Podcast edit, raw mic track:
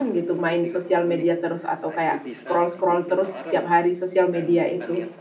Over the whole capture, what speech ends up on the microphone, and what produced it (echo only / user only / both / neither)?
both